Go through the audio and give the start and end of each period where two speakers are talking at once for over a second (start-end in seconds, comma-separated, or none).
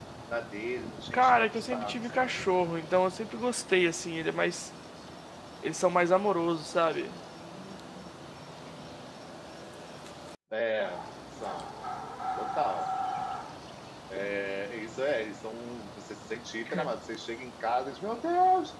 1.1-2.4